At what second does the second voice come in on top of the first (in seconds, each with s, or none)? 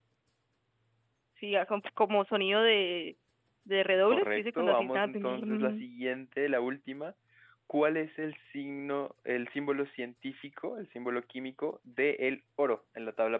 4.0 s